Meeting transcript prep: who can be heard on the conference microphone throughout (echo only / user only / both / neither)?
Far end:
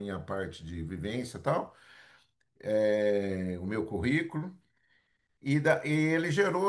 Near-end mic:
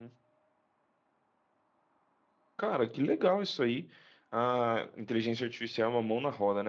user only